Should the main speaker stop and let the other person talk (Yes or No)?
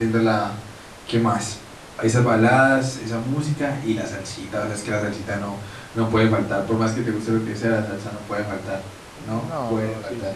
Yes